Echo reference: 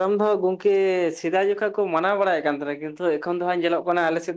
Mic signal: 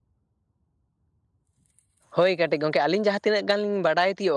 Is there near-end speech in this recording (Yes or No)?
Yes